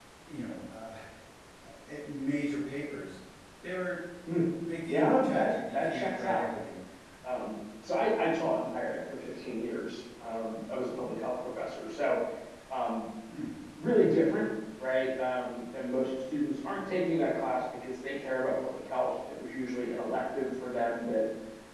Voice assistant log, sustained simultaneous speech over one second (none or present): present